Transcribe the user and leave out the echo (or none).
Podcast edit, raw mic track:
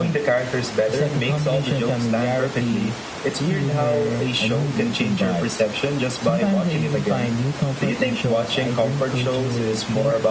none